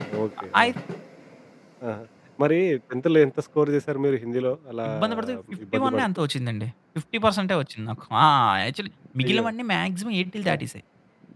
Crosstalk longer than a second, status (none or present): none